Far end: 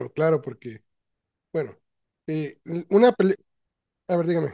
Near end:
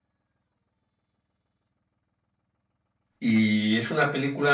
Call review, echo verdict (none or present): none